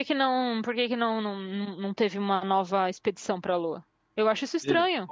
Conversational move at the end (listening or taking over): taking over